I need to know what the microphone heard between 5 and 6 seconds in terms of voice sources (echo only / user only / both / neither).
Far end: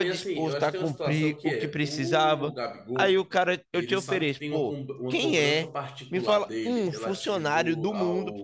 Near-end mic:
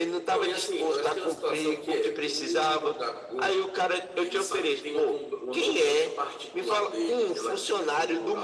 echo only